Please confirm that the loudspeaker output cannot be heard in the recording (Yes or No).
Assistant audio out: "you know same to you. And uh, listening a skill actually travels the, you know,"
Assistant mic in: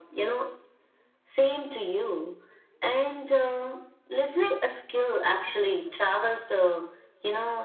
No